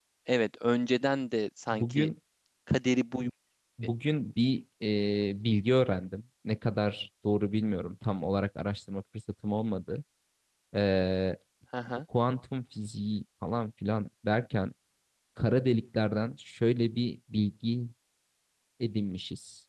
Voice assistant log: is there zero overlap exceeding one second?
Yes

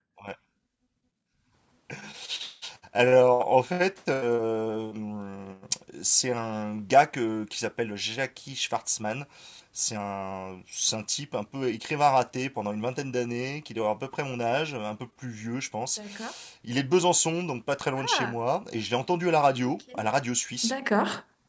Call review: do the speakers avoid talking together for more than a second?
Yes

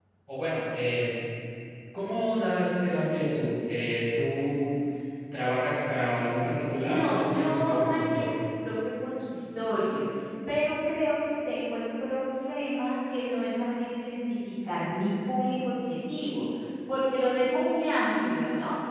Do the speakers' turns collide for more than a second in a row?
Yes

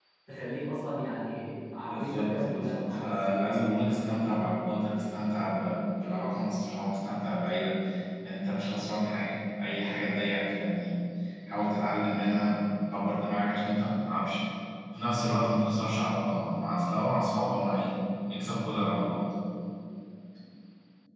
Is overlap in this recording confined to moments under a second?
No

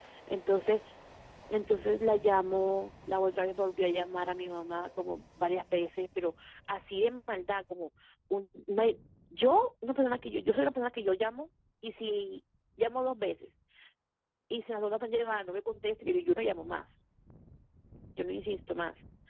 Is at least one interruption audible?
No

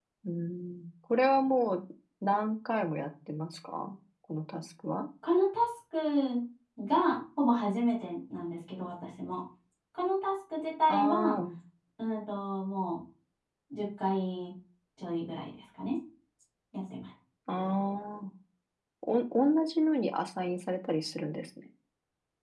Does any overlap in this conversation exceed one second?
No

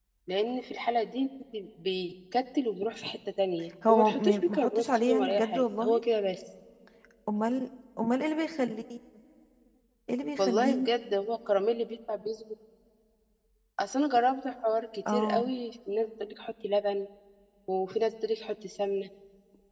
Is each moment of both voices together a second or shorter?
No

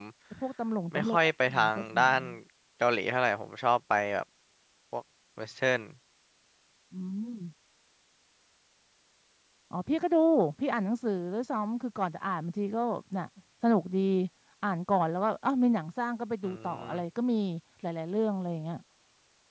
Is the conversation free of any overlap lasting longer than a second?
No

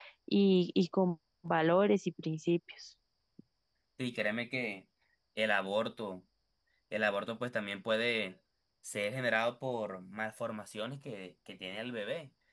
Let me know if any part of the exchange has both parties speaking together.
No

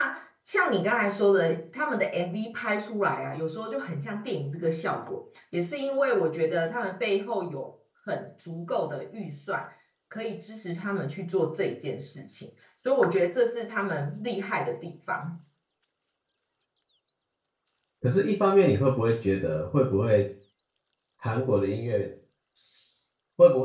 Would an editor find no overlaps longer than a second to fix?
Yes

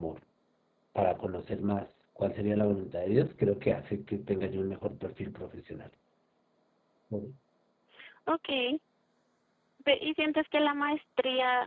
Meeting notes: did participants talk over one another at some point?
No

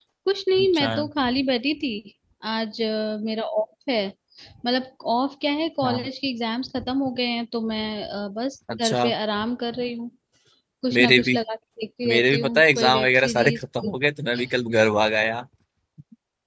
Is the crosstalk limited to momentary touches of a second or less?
No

